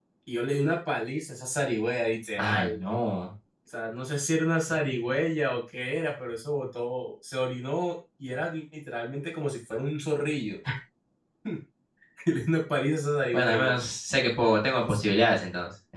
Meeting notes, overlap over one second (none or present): none